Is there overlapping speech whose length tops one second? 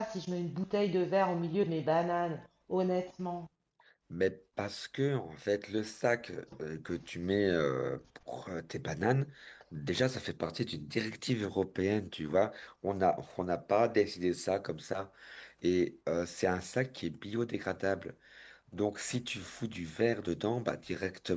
No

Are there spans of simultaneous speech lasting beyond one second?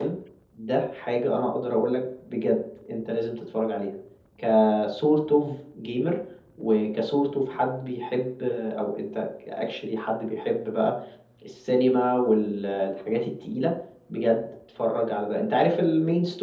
No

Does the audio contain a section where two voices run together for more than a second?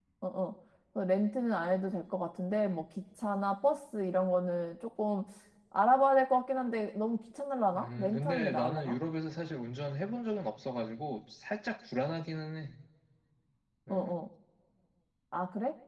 Yes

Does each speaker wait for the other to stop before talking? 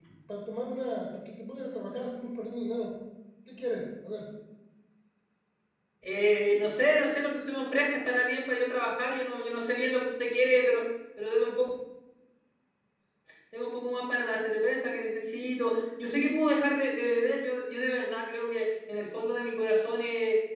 Yes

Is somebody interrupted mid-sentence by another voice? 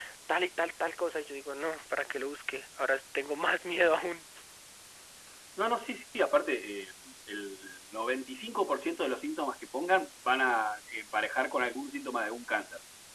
No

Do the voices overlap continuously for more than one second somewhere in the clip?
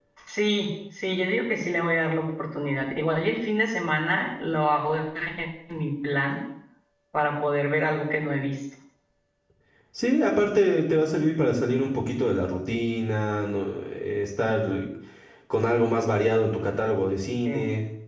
No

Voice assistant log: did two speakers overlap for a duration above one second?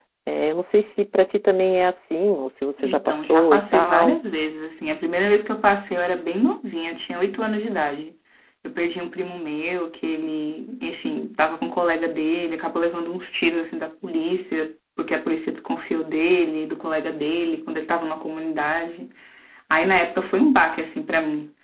Yes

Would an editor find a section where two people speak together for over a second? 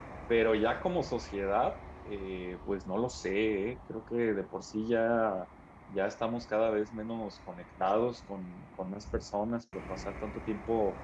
No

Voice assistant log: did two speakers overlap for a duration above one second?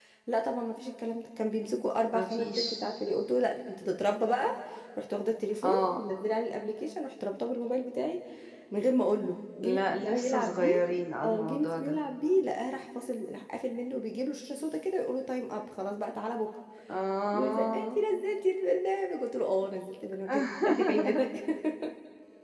Yes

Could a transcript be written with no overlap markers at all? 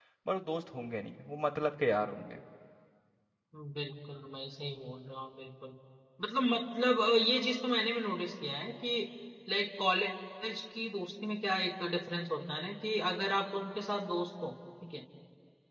Yes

